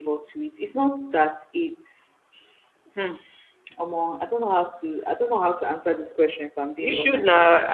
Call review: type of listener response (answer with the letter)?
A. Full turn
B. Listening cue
A